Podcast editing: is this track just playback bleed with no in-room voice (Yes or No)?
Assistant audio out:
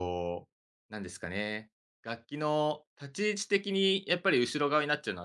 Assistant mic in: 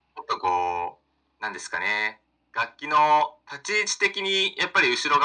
Yes